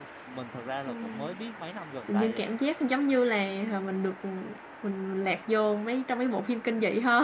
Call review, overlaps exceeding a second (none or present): none